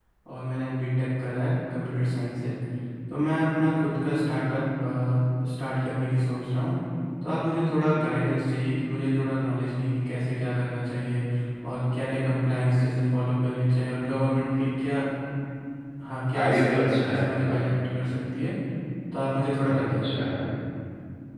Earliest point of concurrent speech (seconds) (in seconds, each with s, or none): 16.4 s